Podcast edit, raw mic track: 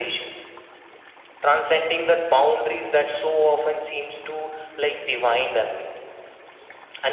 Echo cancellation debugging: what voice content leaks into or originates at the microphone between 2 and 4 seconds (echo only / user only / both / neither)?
echo only